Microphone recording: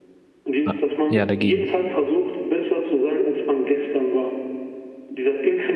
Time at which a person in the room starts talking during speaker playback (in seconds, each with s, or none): 0.6 s